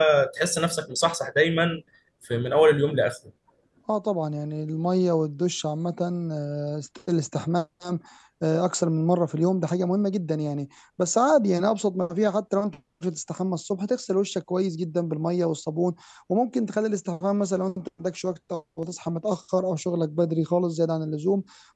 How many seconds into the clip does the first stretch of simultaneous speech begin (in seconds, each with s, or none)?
none